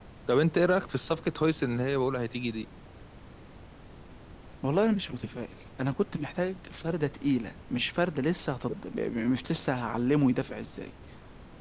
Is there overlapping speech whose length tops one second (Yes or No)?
No